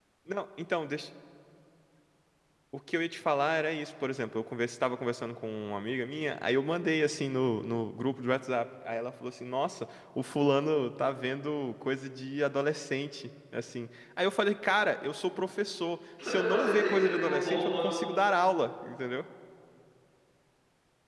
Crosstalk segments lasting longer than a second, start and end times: 16.3-17.8

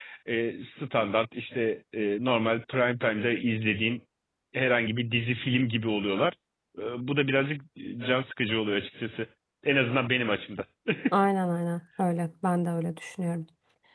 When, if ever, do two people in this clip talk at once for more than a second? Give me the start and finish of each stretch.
none

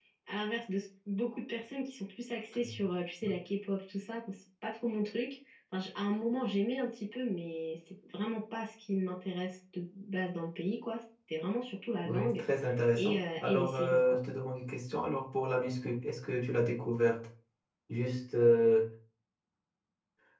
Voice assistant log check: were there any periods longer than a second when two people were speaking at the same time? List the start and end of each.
12.9-14.2

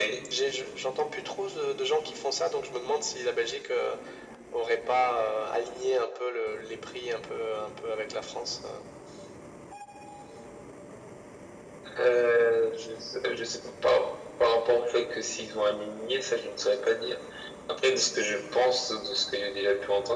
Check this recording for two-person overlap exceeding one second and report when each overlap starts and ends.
none

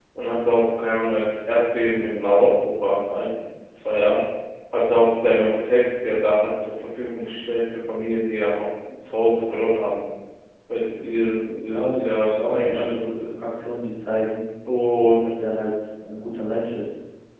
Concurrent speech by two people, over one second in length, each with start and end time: 11.7-13.3

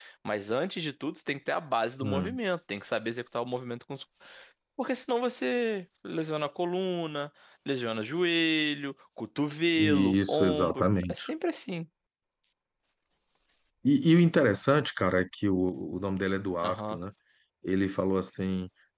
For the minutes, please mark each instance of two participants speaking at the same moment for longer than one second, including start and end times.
9.8-11.2

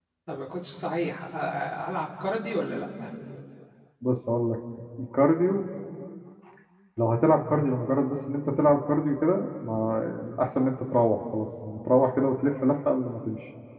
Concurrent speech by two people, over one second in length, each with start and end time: none

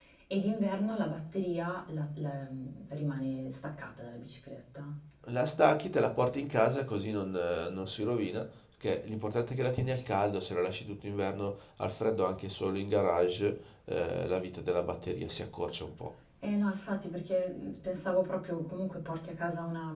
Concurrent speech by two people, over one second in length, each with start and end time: none

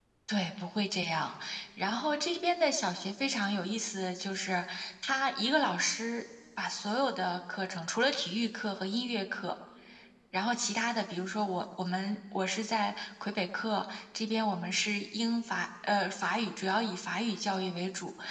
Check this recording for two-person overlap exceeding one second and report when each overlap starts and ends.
none

